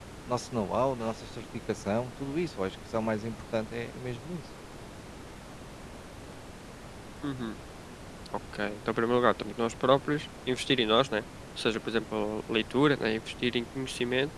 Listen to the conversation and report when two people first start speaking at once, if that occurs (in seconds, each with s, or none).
none